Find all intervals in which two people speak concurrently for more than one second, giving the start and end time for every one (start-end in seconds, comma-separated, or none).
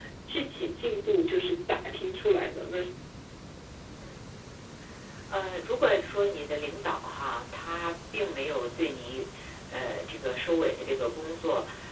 none